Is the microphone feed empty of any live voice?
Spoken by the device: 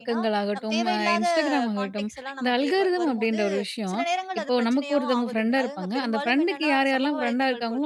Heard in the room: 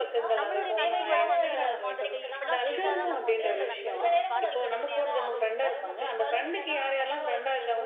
No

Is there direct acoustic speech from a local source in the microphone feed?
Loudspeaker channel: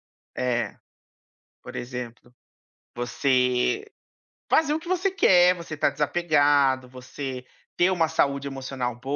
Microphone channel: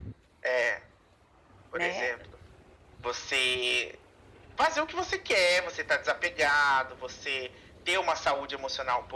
Yes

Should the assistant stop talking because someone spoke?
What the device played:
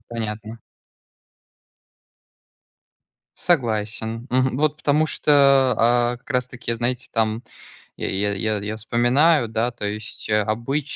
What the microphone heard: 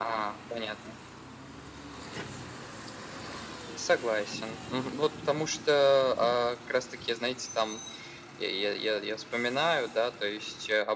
No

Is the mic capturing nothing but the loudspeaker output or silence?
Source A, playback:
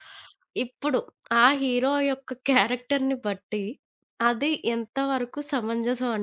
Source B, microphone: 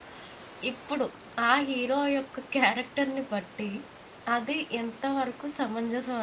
Yes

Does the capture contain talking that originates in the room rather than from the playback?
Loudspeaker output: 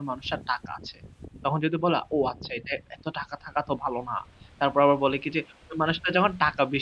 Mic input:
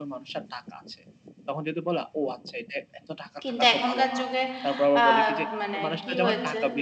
Yes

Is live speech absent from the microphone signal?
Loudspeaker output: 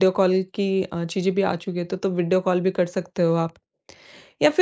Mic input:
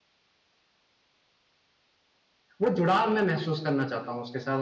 No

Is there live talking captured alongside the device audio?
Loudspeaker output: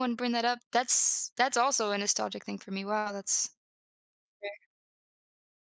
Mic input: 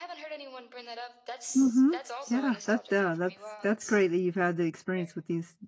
Yes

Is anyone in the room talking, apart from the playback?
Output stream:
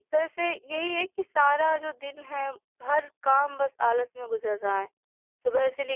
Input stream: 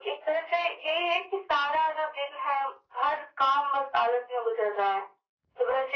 No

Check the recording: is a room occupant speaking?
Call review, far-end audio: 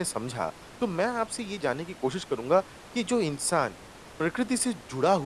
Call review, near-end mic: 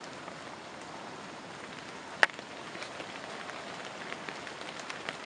No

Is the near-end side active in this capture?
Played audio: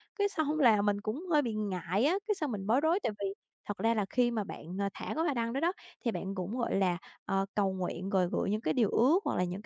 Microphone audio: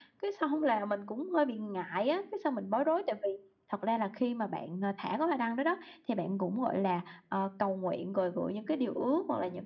No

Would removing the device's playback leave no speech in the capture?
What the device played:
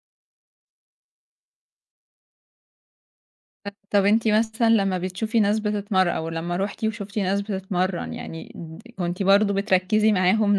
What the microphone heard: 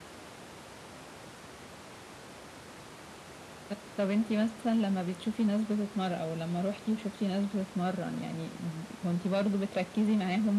Yes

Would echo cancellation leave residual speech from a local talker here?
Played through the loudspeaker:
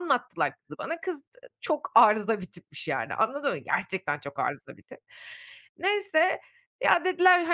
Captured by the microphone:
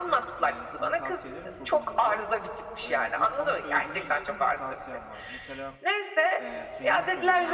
Yes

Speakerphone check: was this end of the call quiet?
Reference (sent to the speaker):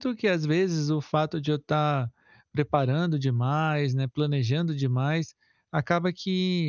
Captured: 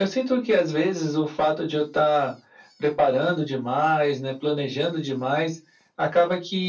Yes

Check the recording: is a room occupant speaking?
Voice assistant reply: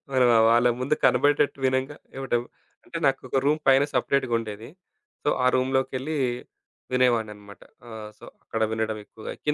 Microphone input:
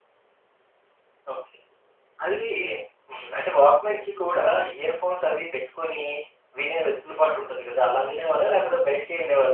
Yes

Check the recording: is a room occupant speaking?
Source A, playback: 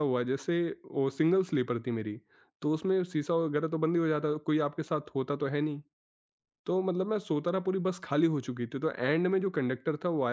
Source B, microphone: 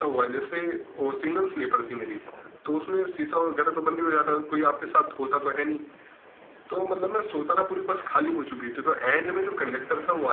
No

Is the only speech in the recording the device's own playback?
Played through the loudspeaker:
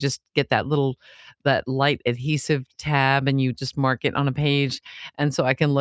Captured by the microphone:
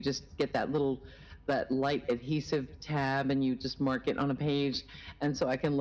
Yes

